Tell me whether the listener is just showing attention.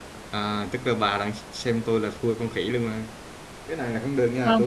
Yes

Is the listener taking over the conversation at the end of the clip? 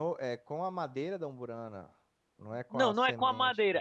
Yes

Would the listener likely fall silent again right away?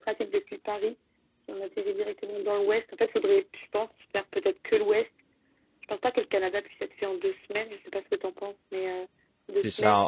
No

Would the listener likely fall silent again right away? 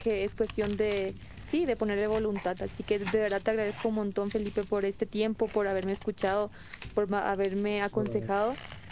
Yes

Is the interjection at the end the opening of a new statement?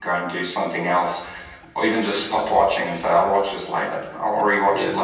Yes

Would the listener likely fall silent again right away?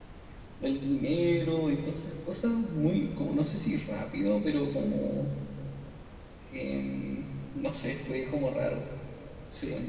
No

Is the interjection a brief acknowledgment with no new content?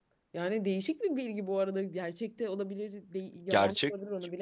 No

